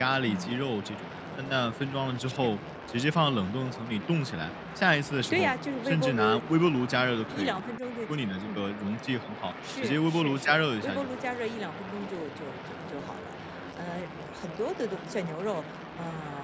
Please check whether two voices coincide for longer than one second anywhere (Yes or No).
Yes